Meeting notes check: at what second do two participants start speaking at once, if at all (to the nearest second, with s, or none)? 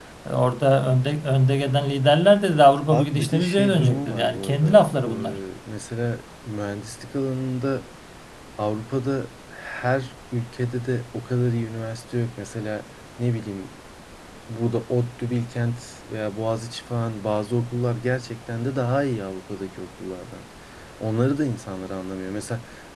3 s